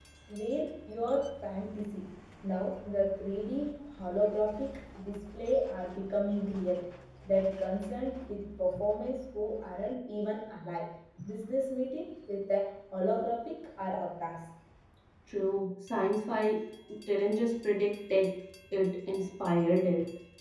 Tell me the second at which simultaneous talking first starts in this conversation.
none

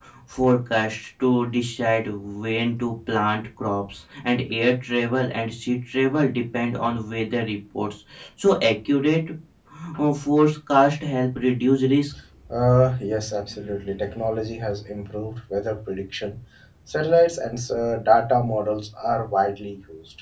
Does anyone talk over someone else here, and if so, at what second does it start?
none

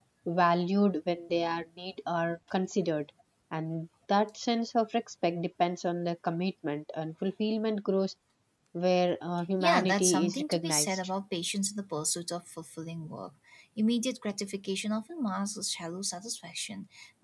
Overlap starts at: 9.6 s

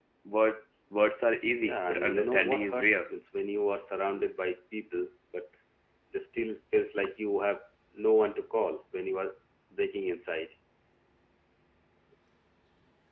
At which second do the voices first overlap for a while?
1.6 s

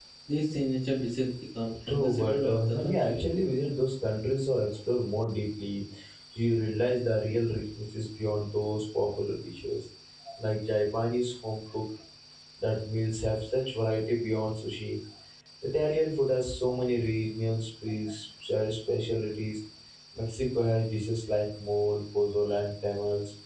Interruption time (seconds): 1.9 s

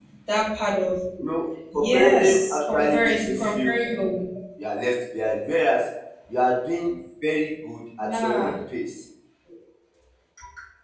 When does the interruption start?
1.7 s

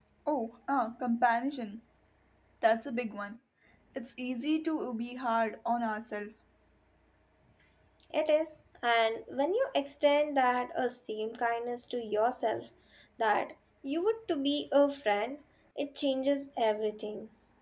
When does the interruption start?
none

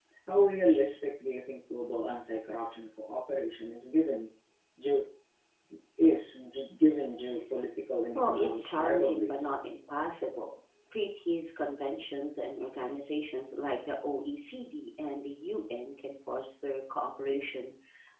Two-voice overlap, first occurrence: 8.2 s

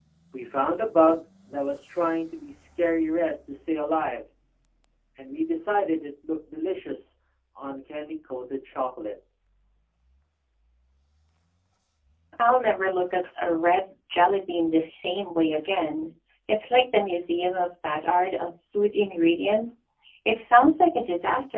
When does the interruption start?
none

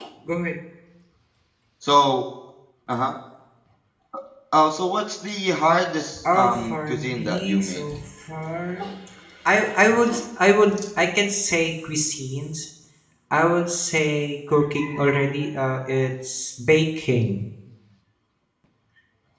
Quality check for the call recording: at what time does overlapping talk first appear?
6.2 s

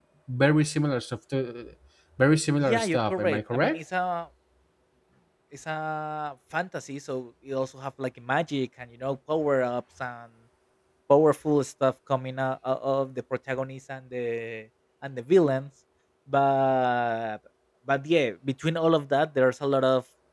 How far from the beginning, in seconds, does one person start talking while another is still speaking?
2.6 s

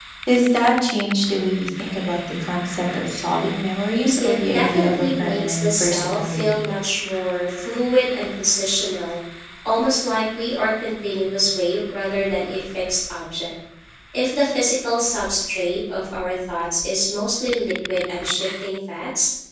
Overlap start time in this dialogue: 4.2 s

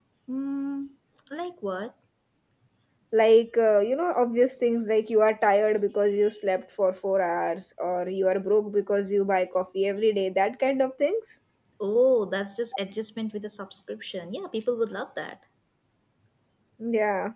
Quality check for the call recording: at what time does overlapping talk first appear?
none

